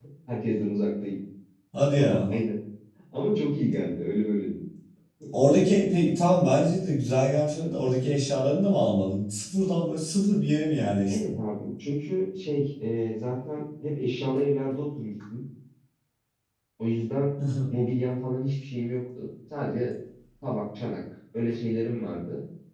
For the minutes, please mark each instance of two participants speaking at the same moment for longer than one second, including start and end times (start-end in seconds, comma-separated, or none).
none